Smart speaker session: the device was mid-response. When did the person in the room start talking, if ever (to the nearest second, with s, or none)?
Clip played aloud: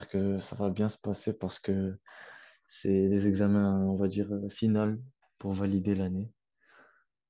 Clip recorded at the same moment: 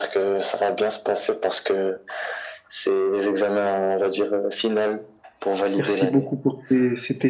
6 s